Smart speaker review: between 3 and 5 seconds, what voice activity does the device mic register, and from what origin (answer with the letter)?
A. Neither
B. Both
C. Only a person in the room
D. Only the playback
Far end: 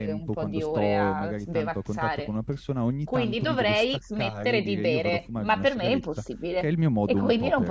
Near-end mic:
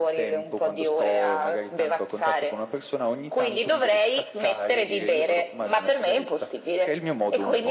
D